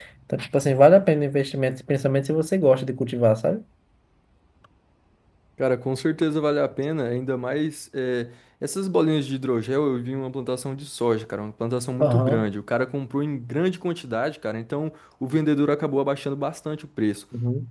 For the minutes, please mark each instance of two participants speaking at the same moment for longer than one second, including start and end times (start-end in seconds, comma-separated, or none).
none